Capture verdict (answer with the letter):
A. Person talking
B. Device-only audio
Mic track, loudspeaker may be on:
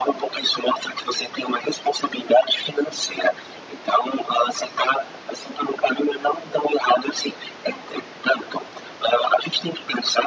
B